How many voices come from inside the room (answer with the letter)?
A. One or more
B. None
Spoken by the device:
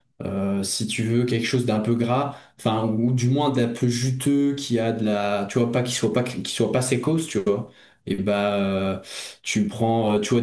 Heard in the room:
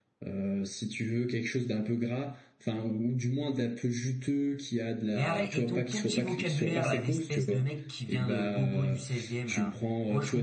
A